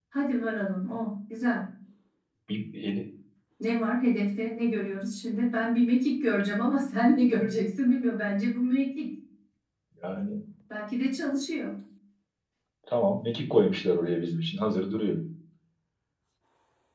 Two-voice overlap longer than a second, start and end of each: none

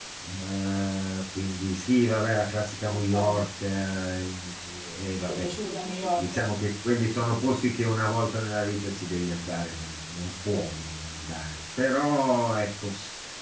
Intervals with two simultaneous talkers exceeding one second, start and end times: none

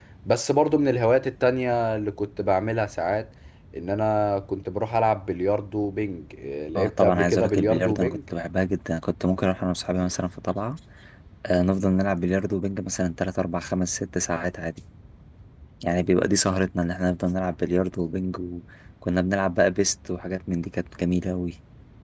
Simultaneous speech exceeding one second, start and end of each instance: 6.8-8.2

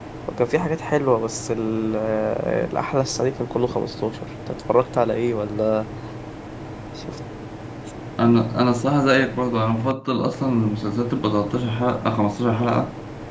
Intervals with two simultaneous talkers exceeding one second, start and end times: none

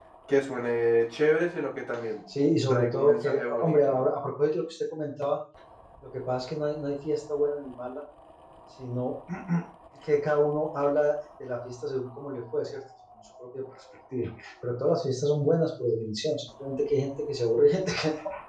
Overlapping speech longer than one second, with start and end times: 2.7-4.1

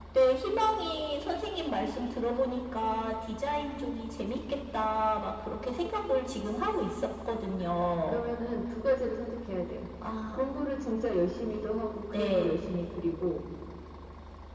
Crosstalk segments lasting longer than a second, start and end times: none

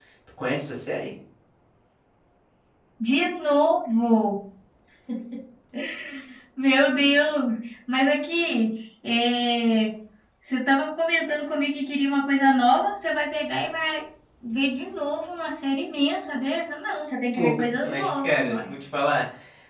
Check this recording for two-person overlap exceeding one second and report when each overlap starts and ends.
17.4-18.7

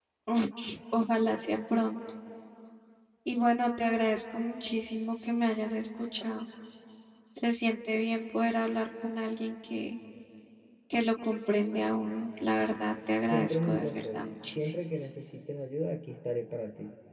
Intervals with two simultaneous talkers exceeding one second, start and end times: 13.2-14.6

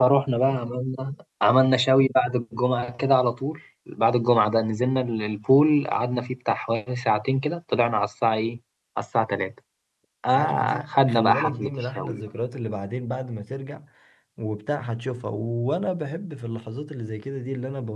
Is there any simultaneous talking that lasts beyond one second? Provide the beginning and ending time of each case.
10.3-12.3

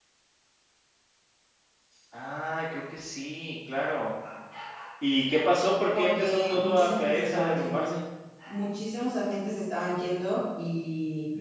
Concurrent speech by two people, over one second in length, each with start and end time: 6.0-7.9

